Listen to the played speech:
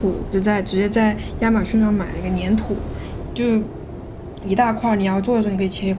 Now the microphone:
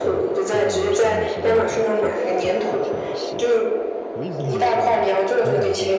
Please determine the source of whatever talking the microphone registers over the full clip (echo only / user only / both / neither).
both